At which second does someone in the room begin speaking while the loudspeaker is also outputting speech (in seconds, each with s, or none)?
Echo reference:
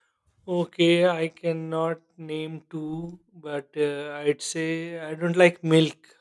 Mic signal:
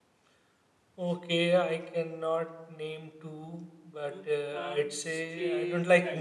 4.0 s